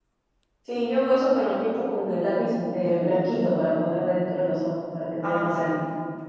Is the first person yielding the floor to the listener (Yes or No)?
Yes